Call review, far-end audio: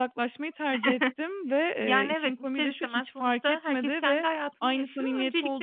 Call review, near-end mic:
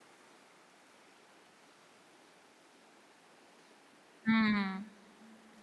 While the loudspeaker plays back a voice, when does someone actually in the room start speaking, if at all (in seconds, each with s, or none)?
4.2 s